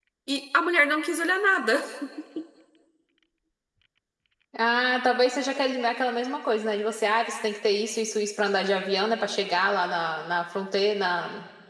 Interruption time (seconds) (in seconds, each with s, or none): none